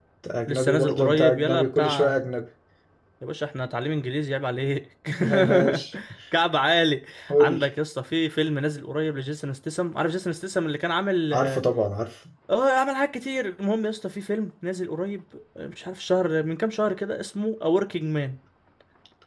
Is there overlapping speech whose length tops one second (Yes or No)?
Yes